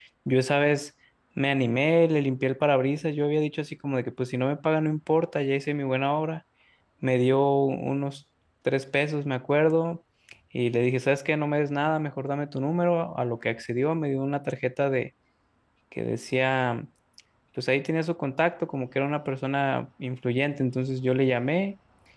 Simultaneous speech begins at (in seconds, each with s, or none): none